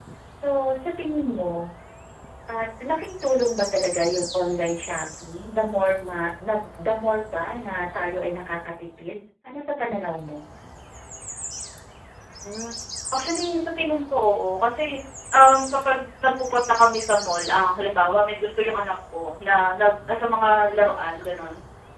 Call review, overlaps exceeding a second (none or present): none